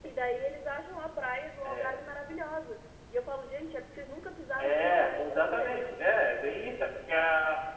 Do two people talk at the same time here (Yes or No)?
Yes